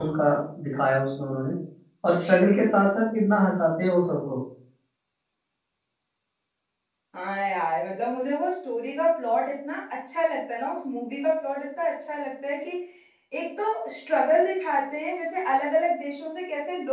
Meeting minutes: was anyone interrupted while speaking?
No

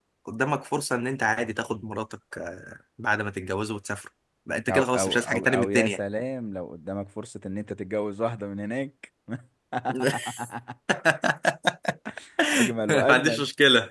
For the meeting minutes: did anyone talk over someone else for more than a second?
Yes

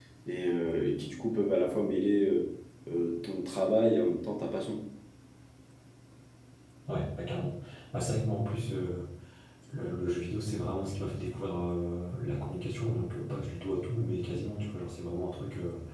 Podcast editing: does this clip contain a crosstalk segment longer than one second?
No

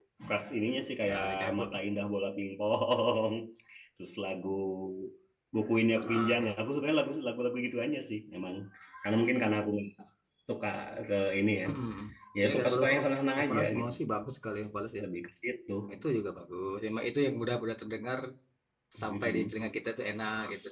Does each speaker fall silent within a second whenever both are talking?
No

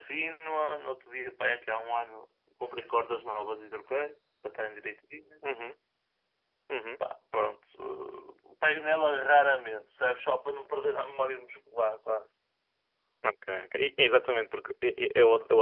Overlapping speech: No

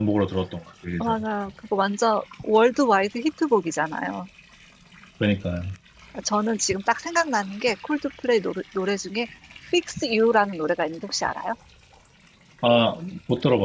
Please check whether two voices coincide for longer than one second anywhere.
No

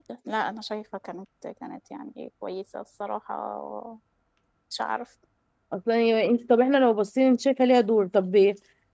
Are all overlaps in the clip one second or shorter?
Yes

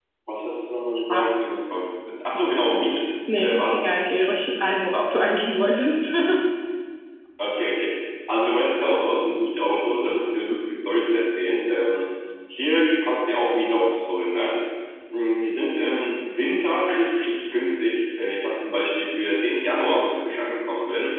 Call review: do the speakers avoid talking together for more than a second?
Yes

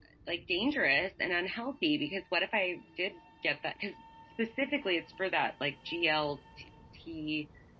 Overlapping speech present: No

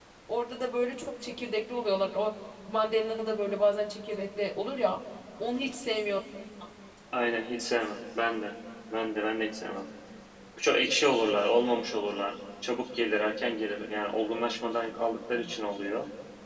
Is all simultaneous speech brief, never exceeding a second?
Yes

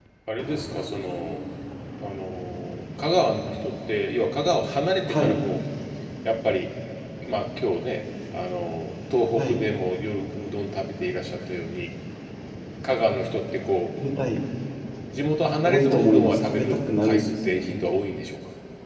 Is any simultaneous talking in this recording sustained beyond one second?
Yes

